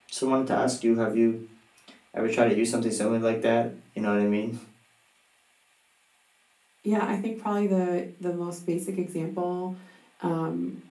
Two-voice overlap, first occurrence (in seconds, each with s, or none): none